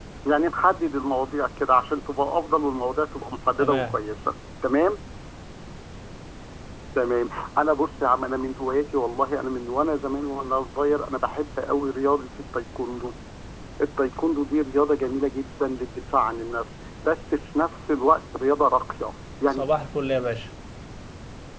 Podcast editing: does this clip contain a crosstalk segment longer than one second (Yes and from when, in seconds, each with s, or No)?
No